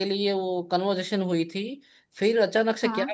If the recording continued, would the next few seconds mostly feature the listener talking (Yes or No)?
No